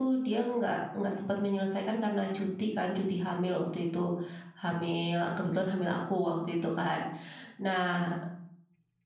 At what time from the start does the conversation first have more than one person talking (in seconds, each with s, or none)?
none